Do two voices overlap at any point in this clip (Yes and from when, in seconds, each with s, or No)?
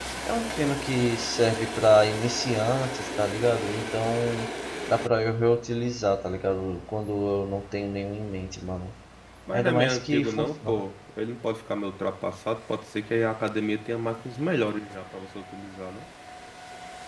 Yes, from 9.5 s